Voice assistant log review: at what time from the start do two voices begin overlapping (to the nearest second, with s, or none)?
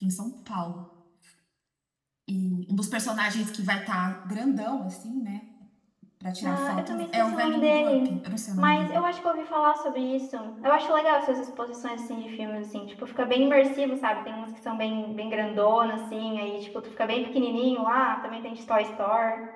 6 s